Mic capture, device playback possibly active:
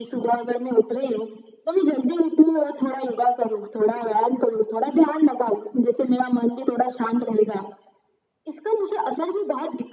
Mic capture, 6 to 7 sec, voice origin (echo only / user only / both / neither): echo only